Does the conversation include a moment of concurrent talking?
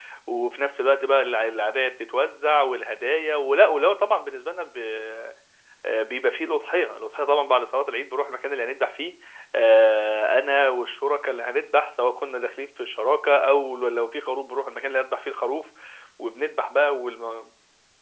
No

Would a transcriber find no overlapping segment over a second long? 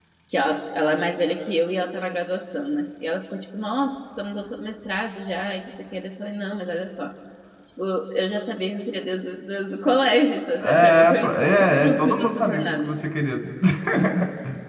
No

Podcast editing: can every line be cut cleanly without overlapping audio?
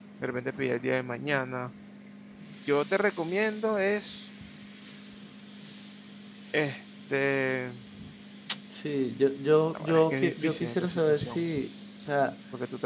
No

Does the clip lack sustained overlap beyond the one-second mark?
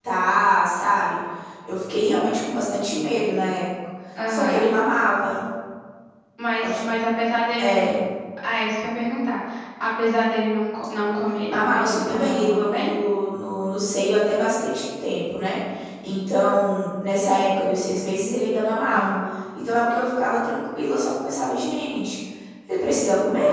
No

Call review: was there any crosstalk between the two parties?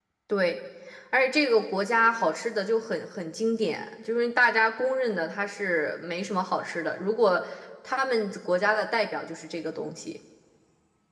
No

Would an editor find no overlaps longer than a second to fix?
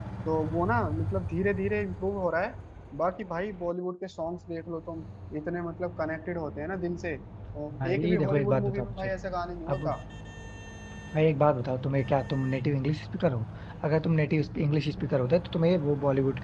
No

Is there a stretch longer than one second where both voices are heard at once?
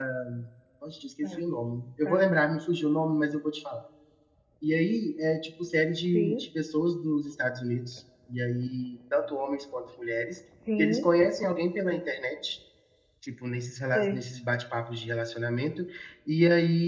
No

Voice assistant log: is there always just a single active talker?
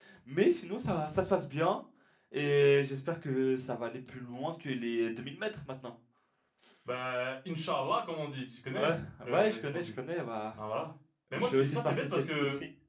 No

